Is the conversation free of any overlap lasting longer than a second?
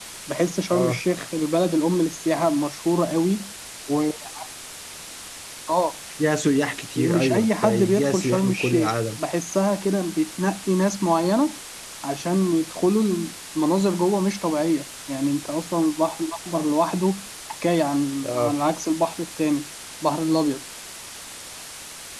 No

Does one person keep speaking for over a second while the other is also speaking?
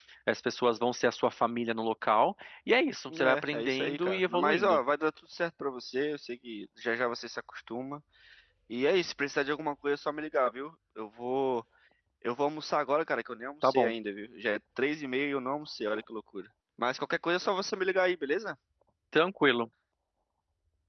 Yes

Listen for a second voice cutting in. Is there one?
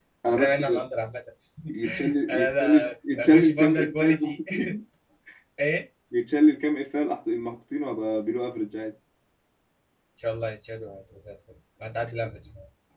Yes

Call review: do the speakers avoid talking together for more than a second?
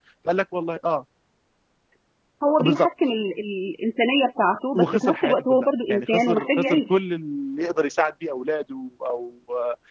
No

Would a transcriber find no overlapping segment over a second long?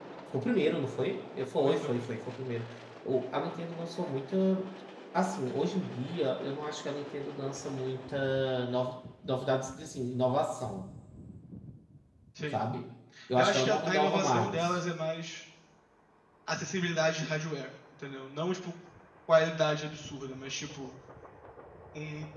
No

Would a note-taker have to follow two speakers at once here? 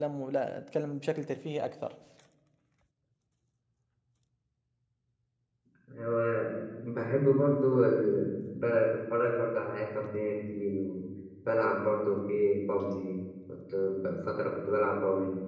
No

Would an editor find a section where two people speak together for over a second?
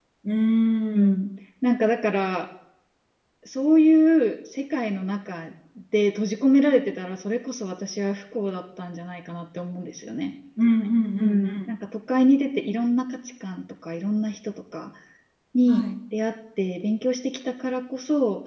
No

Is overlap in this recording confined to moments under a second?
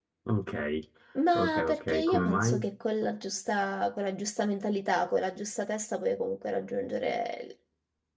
No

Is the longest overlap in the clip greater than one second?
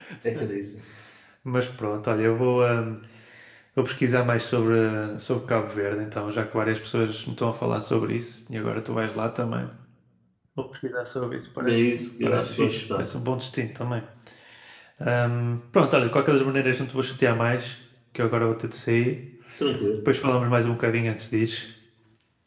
Yes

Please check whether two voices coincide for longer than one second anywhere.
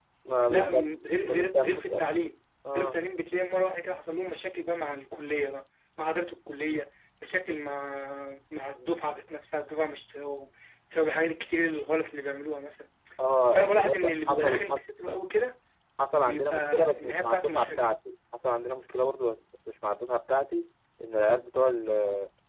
Yes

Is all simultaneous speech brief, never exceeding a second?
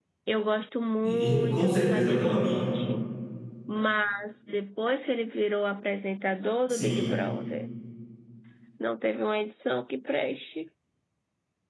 No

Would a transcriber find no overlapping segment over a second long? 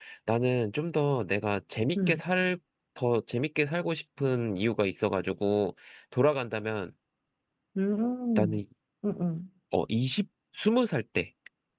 Yes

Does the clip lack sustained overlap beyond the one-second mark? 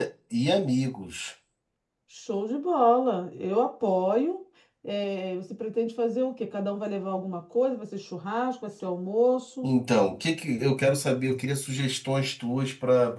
Yes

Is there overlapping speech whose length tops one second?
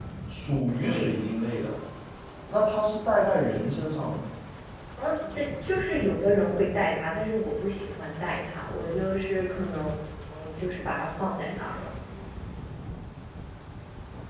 No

